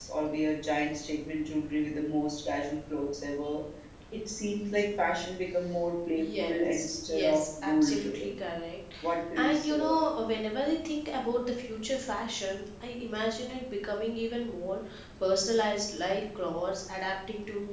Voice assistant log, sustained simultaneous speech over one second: present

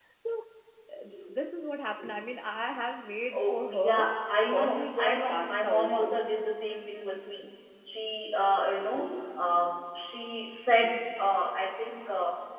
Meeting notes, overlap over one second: present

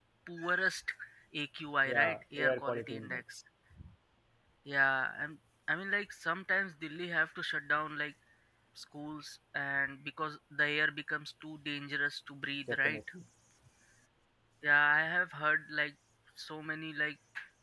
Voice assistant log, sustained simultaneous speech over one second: present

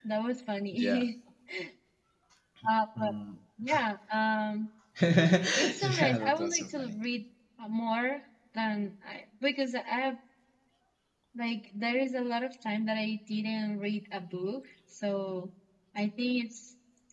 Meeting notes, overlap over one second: present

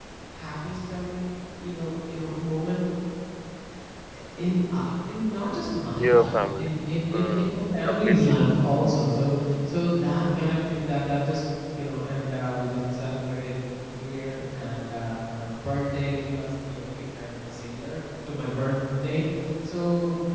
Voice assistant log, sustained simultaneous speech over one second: present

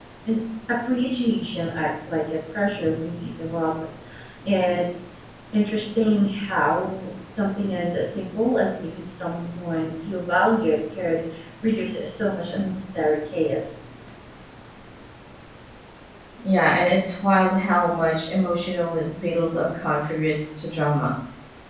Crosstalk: none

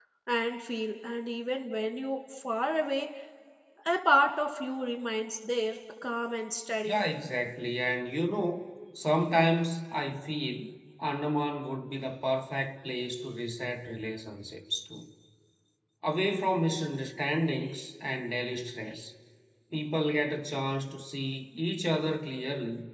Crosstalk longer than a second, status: none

